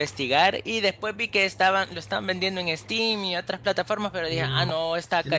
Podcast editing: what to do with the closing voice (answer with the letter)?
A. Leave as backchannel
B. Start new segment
B